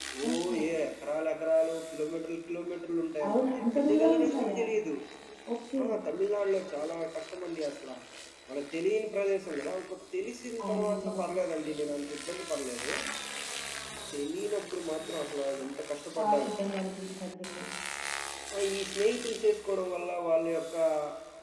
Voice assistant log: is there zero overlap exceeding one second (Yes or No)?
No